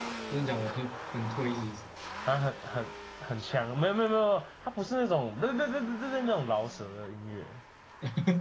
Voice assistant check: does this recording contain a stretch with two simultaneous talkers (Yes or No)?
No